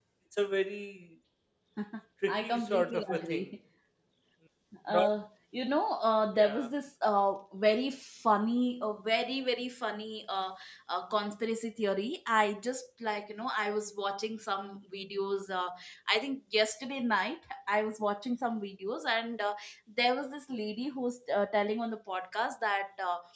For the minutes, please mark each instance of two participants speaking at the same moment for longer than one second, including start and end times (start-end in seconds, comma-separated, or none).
2.3-3.5